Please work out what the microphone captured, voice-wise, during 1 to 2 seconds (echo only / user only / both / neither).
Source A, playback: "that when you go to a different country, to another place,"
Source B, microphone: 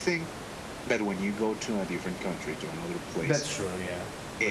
echo only